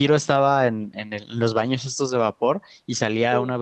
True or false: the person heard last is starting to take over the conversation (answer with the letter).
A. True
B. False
B